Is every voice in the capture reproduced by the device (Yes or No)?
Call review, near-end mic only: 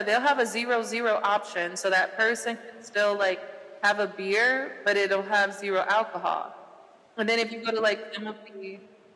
Yes